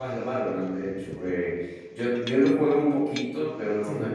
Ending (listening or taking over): listening